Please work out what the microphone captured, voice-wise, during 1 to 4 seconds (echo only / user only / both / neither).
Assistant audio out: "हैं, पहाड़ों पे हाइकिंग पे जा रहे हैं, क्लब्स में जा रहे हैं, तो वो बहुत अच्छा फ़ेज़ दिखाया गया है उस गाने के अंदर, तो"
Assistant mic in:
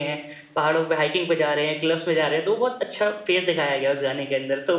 echo only